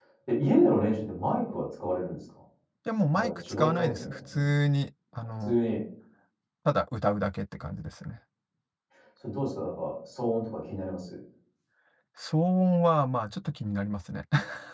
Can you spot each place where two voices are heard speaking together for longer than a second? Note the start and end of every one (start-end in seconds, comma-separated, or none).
3.1-4.4